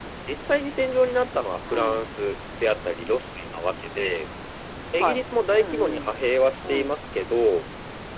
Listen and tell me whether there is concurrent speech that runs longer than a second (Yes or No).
Yes